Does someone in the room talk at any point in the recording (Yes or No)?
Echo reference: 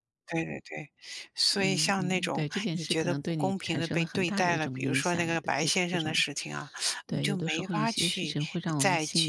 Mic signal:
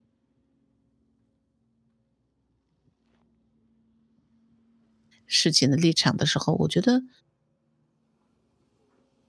Yes